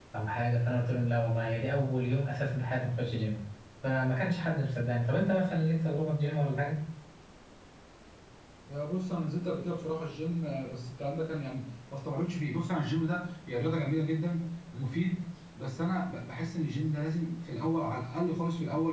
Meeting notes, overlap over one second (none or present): none